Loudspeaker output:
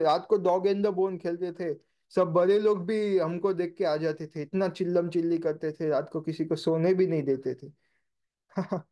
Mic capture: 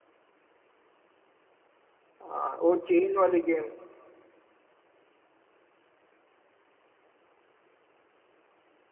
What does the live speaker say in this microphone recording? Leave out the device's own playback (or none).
आ, वो चेन वाली गेम